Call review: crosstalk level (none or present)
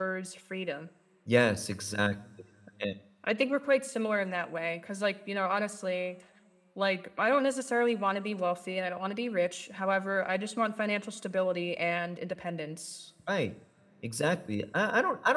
none